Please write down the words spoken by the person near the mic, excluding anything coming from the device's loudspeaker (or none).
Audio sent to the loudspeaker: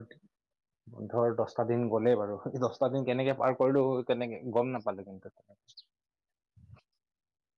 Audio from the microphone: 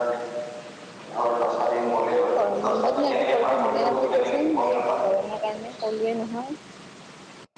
এই গৰম বন্ধতনো একো কৰিব মনে নাযায় দিয়াচোন যি গৰমৰ কাৰণে কলোৱে নহয়।